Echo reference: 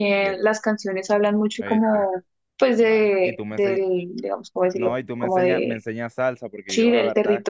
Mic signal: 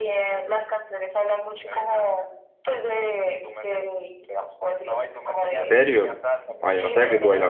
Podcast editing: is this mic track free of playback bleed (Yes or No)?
No